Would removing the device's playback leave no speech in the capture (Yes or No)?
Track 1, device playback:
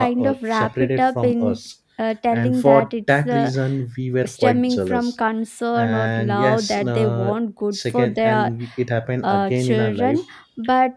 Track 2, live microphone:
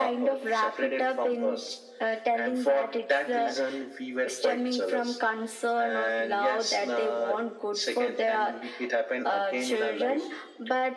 Yes